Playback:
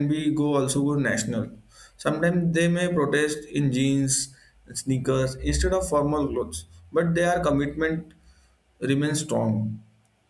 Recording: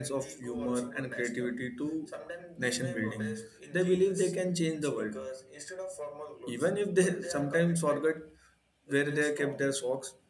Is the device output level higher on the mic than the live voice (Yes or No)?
No